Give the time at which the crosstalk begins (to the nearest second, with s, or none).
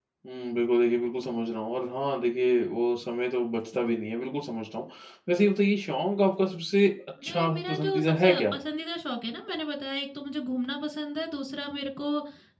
7 s